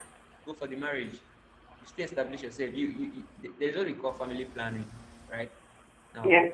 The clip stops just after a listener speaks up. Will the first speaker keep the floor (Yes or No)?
Yes